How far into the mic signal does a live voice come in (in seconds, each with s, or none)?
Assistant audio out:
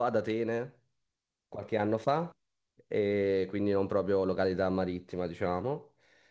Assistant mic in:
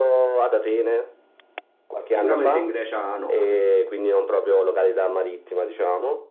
2.1 s